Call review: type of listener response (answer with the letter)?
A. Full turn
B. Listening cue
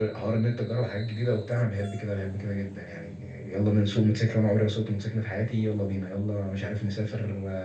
B